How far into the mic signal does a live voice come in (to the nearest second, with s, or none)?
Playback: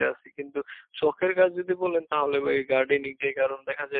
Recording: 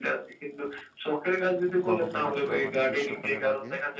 2 s